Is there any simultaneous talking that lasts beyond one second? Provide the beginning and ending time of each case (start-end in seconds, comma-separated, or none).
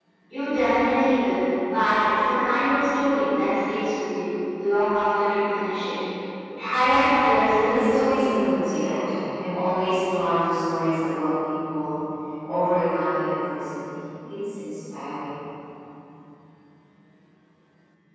7.6-9.0